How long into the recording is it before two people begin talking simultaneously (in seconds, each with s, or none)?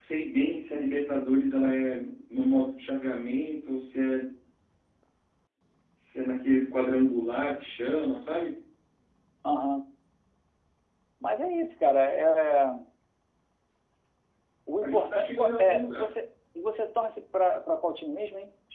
14.8 s